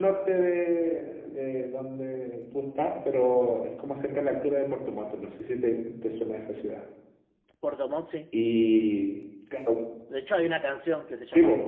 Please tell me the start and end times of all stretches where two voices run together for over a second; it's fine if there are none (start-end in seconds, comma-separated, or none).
none